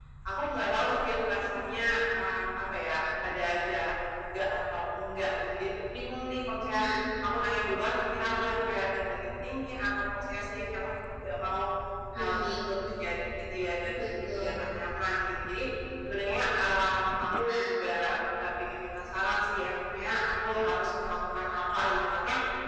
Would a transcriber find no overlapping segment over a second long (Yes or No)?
Yes